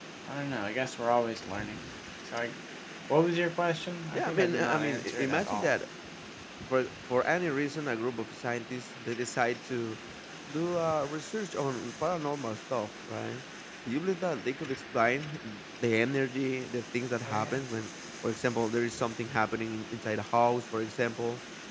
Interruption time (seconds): 4.1 s

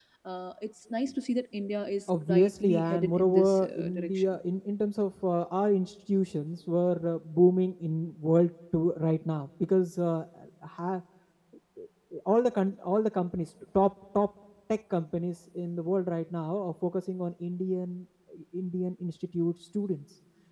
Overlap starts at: 2.1 s

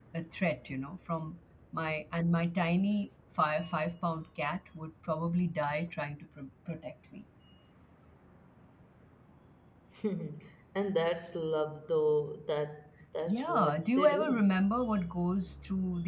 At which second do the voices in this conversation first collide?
13.3 s

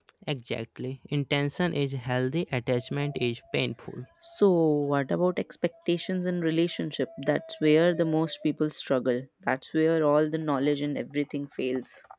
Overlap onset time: none

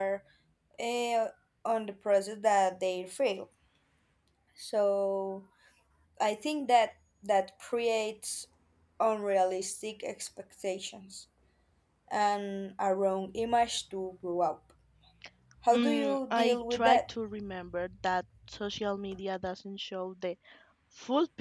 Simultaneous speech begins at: 15.7 s

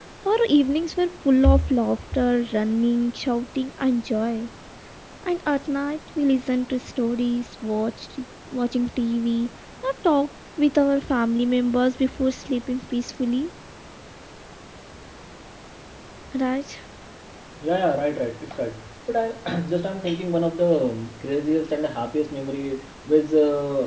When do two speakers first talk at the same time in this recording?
none

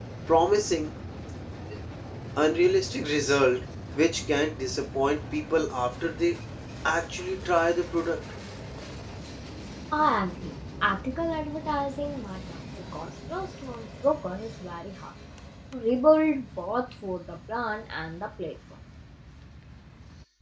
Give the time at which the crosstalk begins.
none

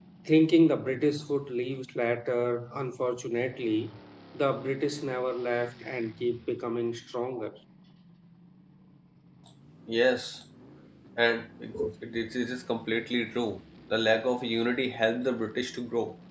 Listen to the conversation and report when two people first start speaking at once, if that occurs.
none

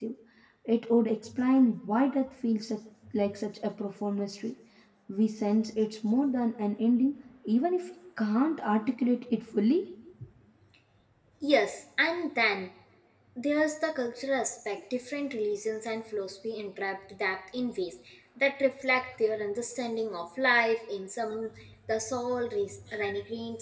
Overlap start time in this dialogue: none

